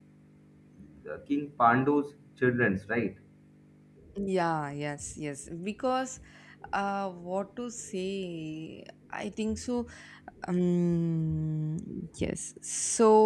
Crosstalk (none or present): none